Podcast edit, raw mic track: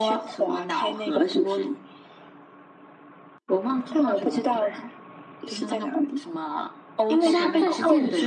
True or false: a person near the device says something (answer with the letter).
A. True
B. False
A